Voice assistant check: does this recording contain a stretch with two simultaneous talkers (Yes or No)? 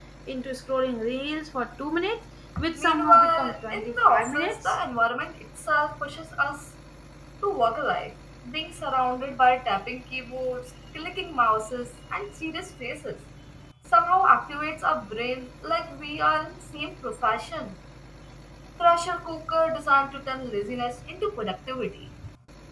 Yes